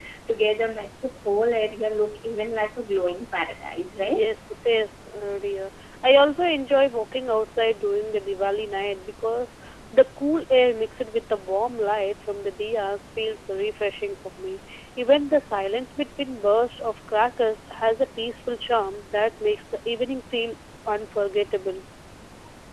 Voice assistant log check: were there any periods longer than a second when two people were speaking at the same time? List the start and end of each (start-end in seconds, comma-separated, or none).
none